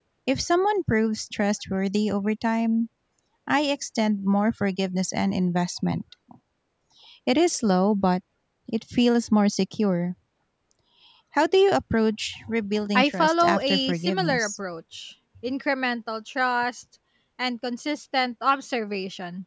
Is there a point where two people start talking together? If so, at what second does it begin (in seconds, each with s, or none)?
12.9 s